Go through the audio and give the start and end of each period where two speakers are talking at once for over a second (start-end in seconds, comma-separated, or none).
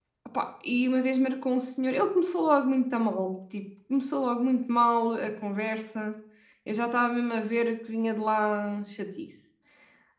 none